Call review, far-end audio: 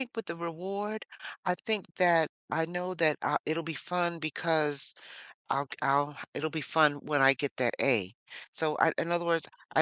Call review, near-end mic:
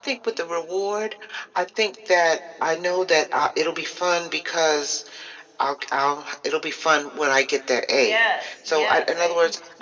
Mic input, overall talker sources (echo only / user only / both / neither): both